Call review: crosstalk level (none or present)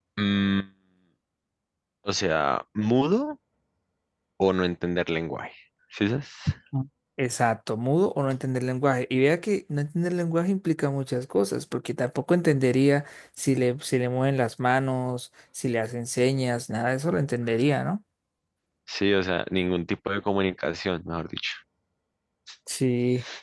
none